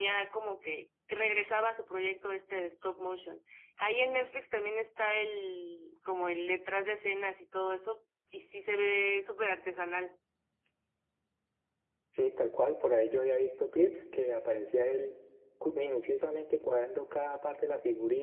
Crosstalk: none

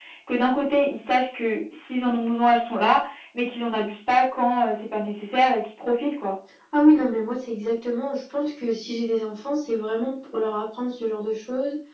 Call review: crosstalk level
none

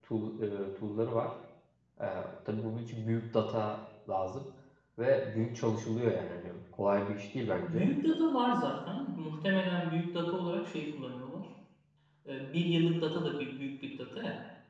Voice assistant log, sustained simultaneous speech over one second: none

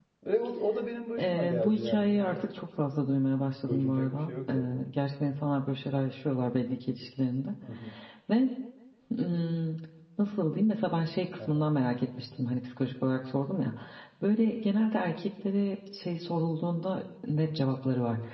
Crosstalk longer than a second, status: present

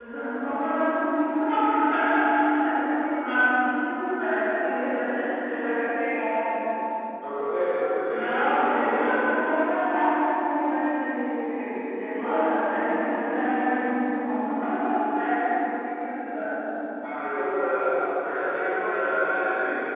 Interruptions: present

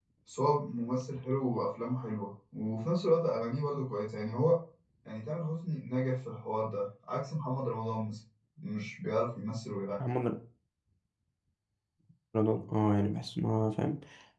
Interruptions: none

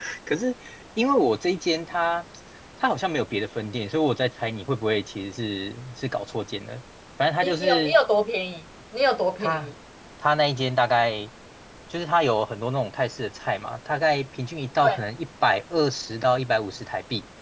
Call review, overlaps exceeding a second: none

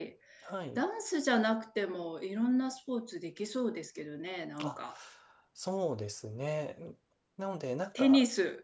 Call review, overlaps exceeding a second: none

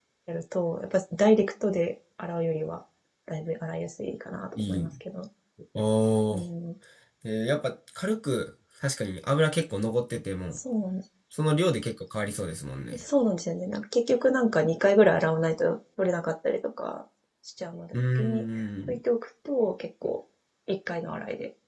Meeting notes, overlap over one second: none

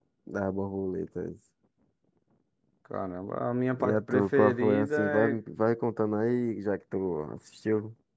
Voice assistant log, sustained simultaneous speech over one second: present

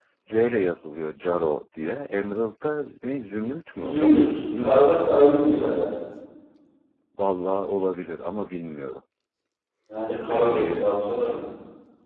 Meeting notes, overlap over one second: present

